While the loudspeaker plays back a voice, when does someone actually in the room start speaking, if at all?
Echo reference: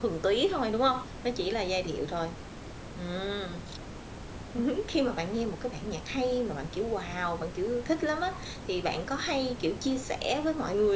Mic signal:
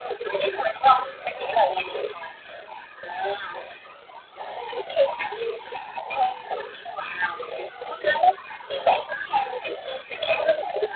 none

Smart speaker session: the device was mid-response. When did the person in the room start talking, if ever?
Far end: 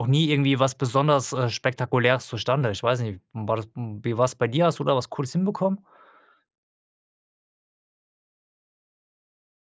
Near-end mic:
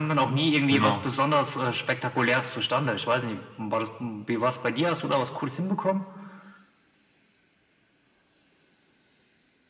0.7 s

